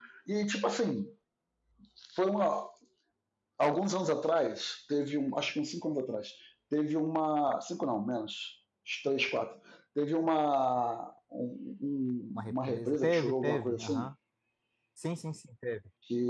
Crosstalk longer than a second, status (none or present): present